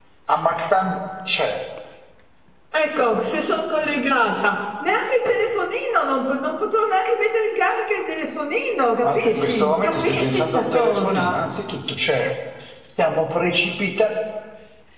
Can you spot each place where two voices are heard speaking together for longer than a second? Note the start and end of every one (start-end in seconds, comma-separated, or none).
9.0-11.4